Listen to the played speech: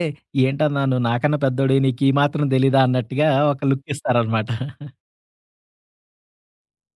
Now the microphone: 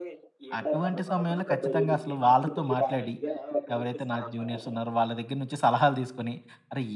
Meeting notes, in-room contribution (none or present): present